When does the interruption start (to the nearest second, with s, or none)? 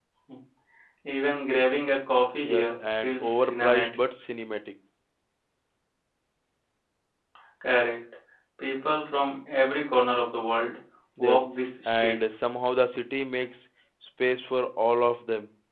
2 s